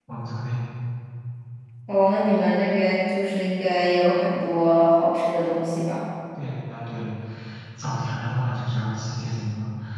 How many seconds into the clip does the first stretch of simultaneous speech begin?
none

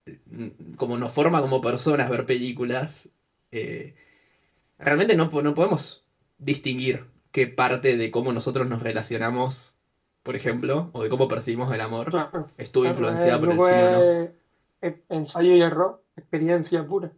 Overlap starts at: 12.8 s

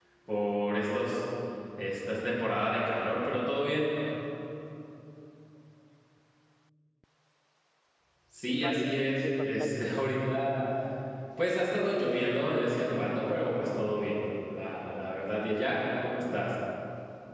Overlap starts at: 8.5 s

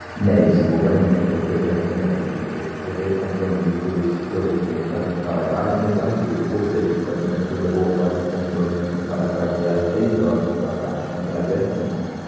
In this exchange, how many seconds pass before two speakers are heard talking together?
none

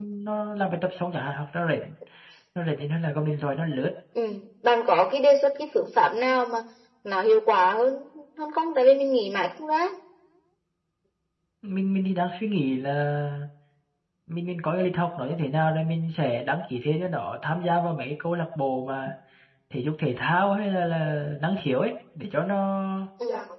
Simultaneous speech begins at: none

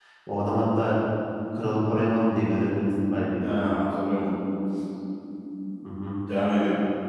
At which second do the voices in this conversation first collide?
none

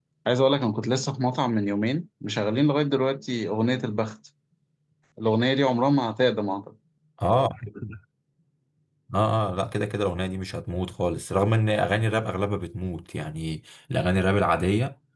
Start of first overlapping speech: none

